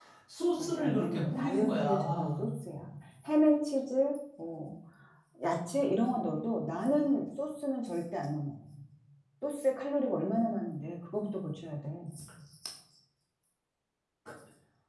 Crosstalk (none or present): present